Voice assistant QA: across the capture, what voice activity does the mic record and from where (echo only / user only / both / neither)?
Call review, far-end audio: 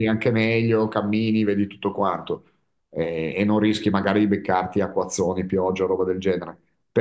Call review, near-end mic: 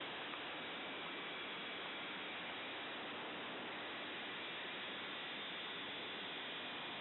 neither